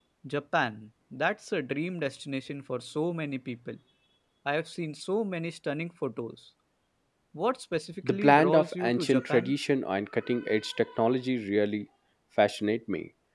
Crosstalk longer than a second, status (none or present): present